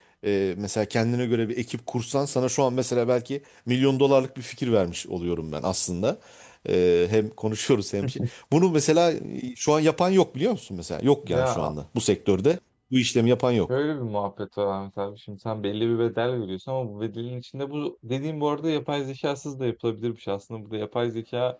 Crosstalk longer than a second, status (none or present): none